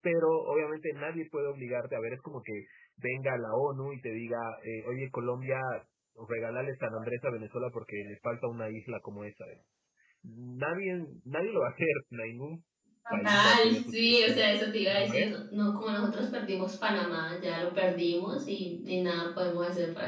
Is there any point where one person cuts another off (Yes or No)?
Yes